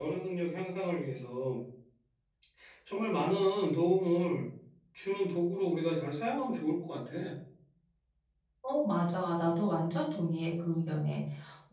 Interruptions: none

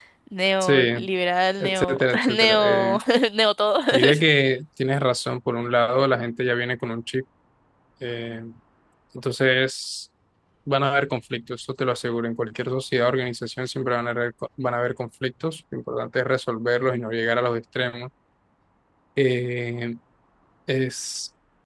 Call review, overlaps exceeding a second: present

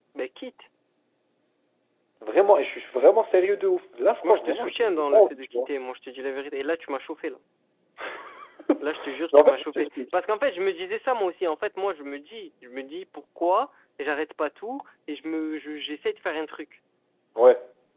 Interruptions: present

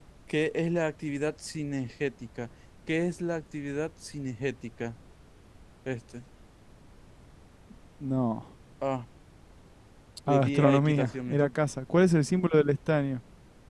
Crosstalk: present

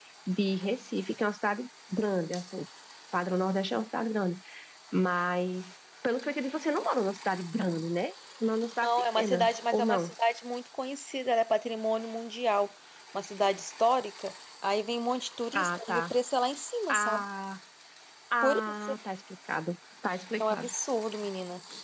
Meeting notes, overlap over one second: present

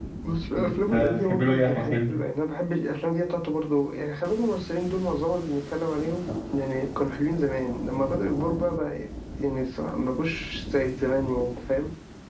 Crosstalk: present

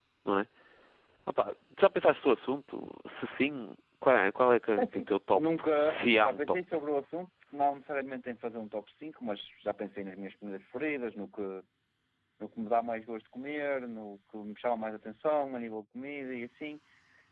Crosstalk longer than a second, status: present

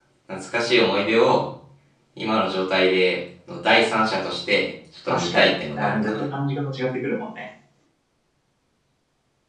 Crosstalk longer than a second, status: present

